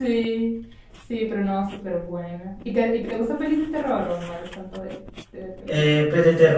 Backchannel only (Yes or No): No